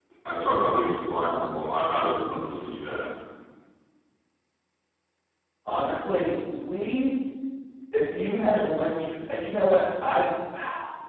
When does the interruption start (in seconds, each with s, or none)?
none